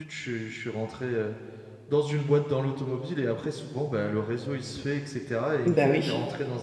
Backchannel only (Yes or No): Yes